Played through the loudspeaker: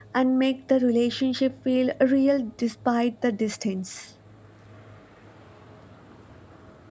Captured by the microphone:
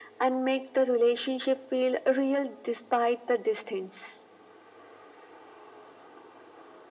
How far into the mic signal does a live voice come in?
none

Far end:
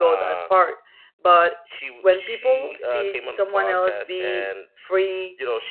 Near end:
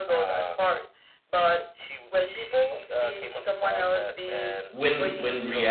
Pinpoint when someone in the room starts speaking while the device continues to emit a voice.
4.7 s

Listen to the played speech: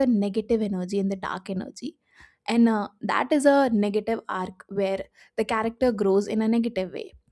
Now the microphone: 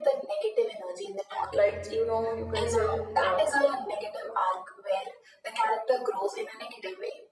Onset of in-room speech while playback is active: 1.5 s

